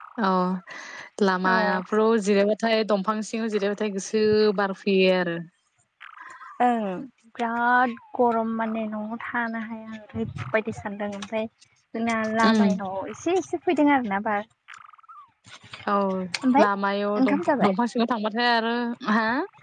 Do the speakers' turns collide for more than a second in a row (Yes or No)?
No